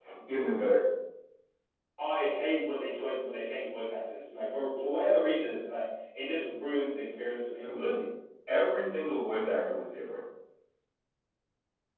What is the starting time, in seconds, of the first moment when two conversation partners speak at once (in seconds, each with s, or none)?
none